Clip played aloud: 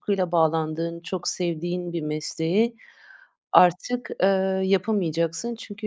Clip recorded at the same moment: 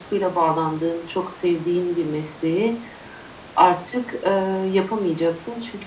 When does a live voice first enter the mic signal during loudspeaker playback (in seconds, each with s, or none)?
none